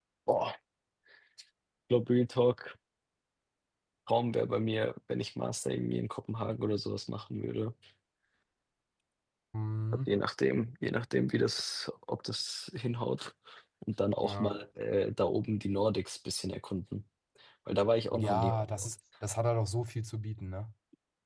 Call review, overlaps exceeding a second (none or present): none